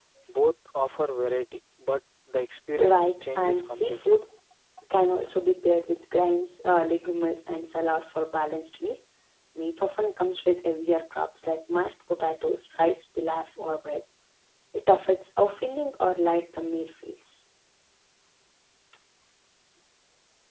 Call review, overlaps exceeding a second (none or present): present